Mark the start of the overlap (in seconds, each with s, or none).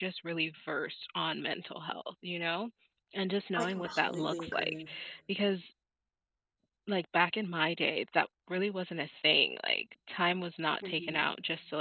3.6 s